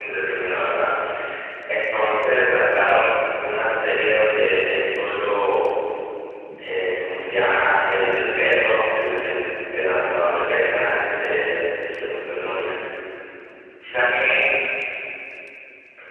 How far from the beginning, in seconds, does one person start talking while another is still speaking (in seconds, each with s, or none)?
none